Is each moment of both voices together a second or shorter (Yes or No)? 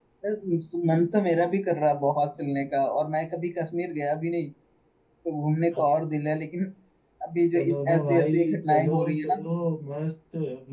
No